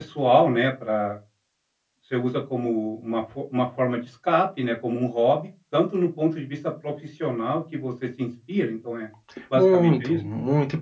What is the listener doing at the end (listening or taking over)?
taking over